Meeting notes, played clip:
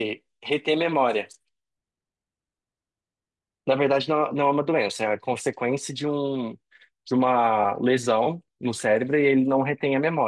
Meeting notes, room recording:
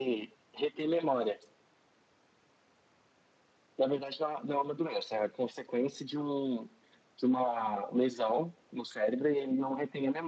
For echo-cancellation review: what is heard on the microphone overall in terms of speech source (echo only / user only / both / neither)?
echo only